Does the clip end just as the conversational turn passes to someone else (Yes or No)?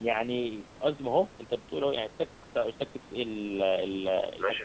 Yes